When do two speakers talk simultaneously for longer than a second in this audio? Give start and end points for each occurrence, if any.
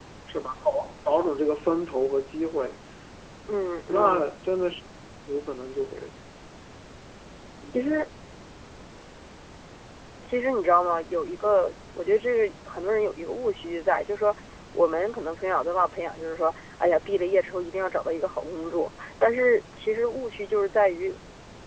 none

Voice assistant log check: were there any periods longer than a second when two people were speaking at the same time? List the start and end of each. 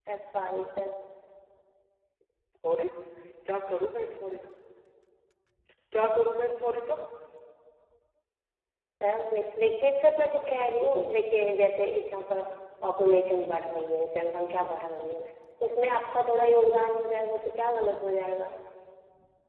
none

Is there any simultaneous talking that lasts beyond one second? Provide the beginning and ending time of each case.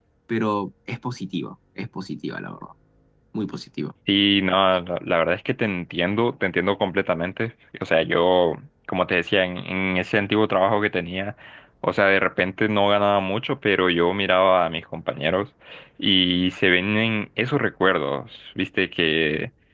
none

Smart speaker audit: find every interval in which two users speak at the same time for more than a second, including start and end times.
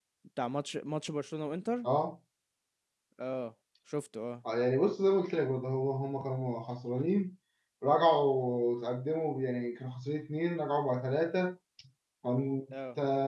none

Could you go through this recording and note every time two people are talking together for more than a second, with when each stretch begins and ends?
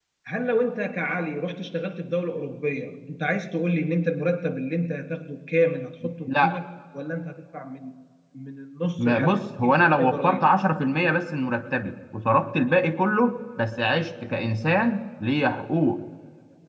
9.0-10.4

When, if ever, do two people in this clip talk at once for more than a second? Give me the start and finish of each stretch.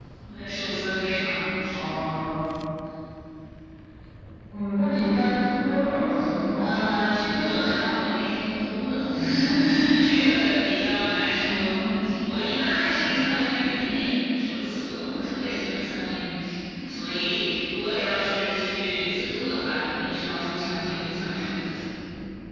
none

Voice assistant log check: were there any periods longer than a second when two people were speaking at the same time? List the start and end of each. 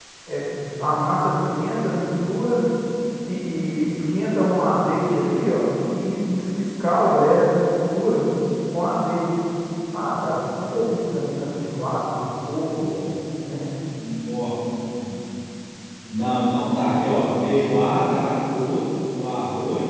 none

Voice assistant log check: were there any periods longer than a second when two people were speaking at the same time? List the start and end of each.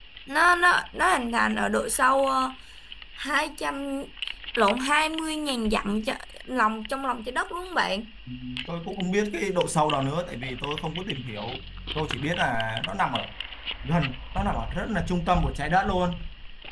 none

